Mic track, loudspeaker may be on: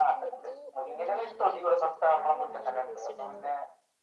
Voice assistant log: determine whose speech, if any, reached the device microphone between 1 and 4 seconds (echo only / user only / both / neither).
both